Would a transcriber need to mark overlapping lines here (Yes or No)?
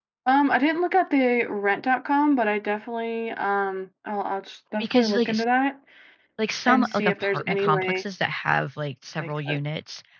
Yes